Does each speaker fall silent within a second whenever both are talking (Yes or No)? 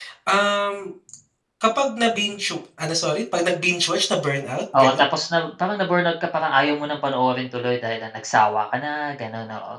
Yes